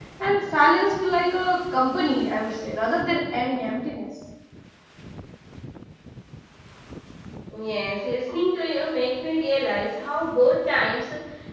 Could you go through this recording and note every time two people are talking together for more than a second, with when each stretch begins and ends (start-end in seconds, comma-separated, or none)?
none